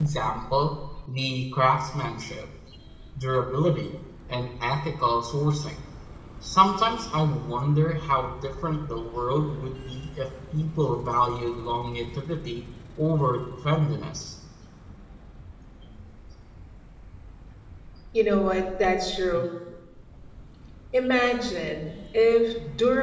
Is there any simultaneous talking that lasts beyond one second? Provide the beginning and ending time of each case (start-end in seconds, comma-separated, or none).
none